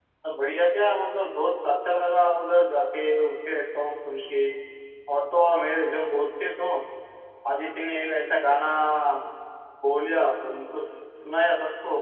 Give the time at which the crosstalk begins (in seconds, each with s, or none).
none